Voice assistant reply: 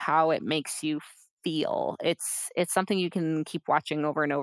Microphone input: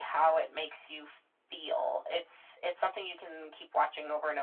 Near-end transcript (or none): none